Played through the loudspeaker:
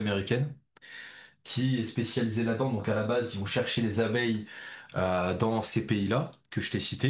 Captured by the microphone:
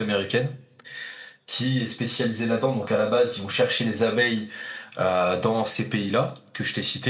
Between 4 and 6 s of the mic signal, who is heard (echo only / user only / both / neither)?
echo only